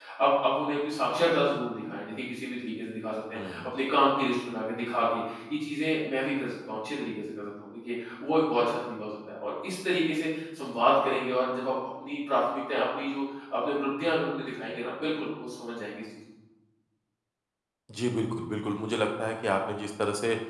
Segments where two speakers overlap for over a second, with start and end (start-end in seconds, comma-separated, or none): none